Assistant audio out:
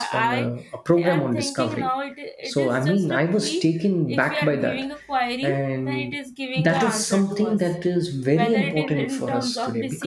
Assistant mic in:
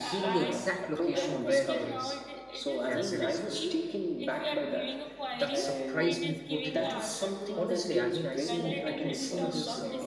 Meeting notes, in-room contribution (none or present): present